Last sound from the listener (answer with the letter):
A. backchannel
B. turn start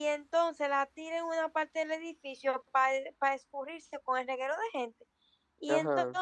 A